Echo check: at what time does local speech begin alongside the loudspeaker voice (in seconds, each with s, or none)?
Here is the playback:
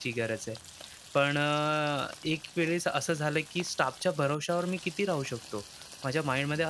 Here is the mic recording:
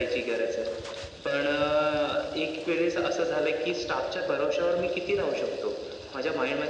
none